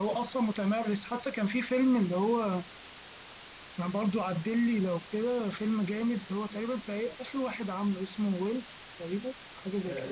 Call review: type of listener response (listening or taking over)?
taking over